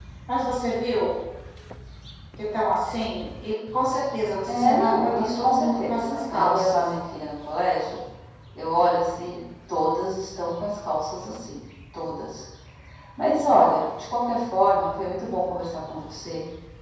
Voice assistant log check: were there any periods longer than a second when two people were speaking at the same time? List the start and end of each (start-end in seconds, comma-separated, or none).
4.5-6.8